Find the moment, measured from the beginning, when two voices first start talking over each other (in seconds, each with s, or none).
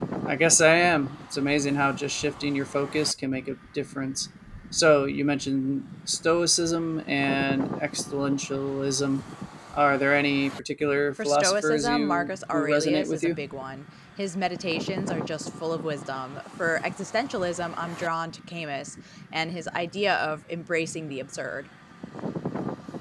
11.2 s